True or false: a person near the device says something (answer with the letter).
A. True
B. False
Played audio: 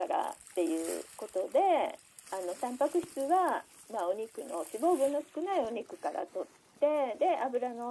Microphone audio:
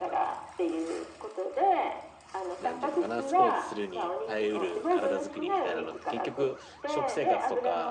A